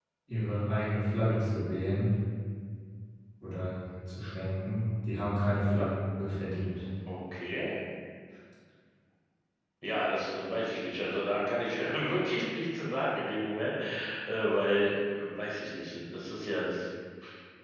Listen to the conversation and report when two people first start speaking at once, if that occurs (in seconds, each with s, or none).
none